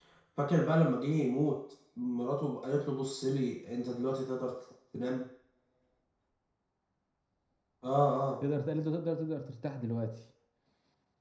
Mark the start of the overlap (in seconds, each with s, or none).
none